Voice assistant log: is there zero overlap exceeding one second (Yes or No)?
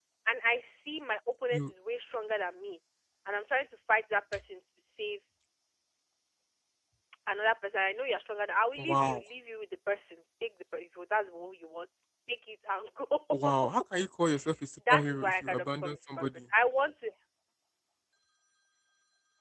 No